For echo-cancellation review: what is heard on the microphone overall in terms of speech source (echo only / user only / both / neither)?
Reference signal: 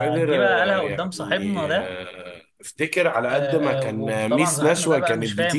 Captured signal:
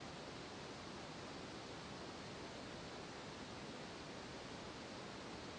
neither